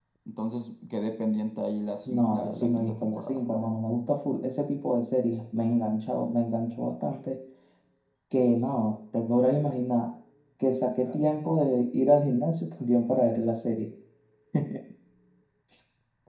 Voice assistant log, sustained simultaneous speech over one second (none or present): present